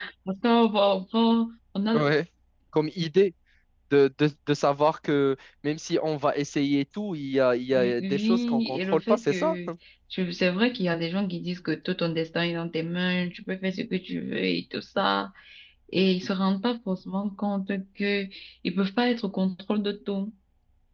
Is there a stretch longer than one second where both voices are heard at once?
Yes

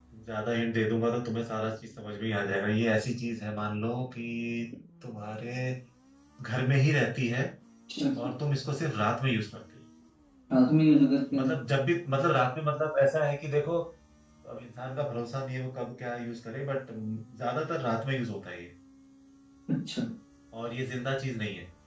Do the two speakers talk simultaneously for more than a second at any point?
No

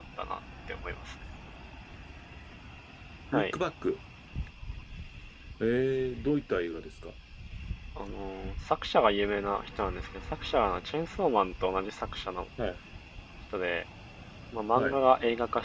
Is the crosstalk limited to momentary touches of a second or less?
Yes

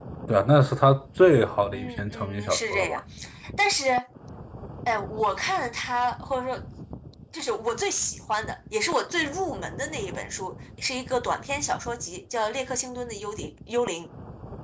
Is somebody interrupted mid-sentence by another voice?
Yes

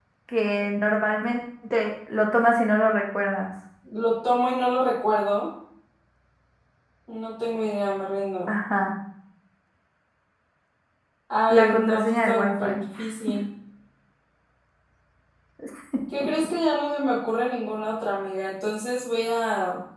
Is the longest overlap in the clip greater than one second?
Yes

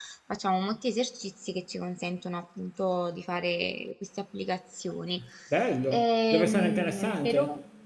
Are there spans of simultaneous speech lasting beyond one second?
Yes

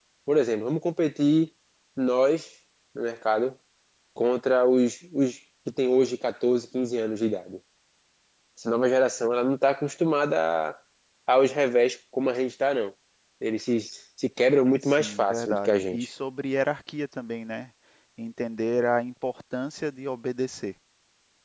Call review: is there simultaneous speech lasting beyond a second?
Yes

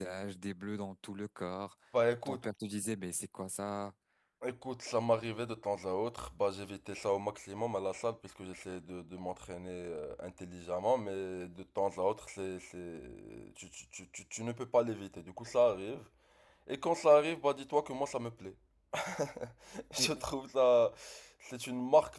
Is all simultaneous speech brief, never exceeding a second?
Yes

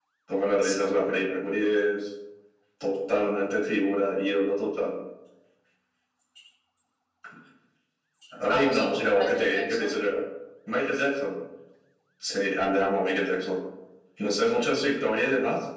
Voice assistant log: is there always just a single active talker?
No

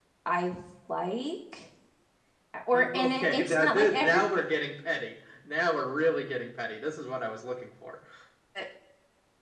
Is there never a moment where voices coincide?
No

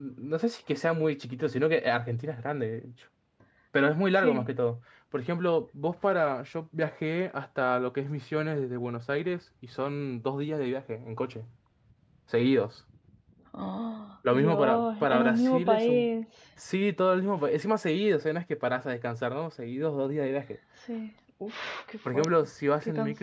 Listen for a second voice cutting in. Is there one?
Yes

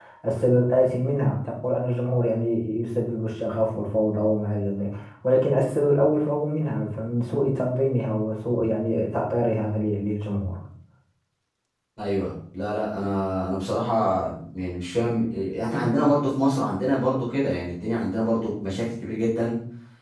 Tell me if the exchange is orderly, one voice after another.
Yes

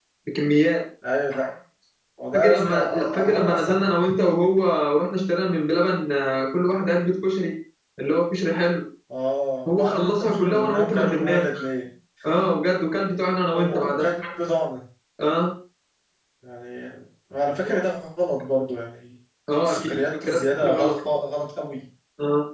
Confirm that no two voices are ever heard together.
No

